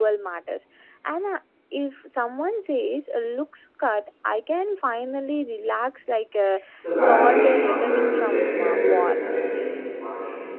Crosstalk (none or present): present